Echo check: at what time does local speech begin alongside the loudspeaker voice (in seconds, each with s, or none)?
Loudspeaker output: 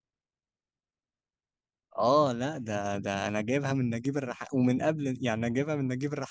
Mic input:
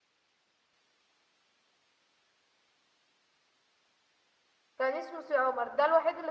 4.8 s